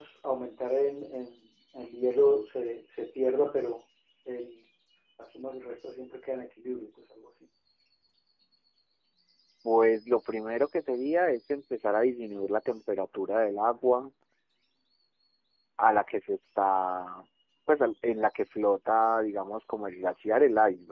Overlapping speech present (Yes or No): No